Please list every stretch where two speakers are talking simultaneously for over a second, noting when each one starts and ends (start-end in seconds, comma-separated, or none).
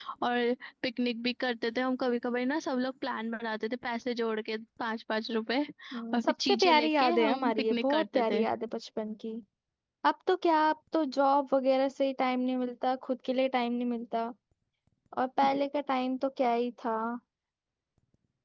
6.1-8.4